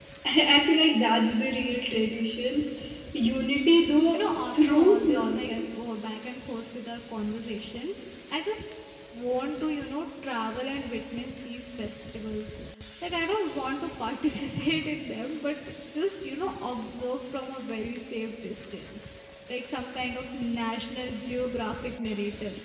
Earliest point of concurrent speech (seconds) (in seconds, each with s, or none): 4.1 s